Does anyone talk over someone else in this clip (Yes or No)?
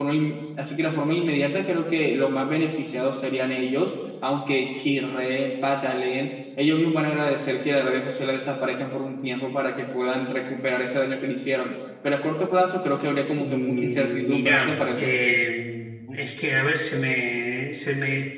Yes